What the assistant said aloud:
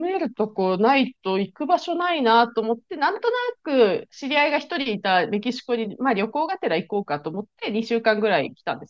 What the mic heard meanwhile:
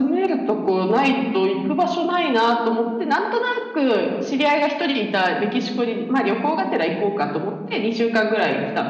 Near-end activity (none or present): none